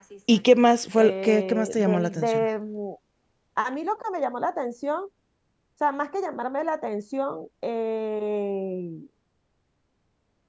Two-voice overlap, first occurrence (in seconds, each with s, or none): 1.0 s